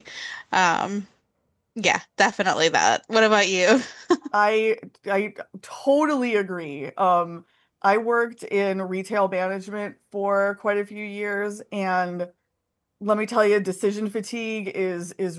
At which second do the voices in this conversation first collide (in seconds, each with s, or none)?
none